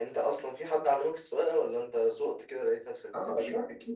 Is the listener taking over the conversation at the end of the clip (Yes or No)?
Yes